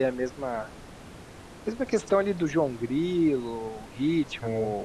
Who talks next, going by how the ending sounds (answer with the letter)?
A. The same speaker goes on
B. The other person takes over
A